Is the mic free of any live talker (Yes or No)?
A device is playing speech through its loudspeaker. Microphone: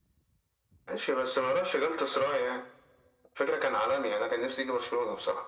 Yes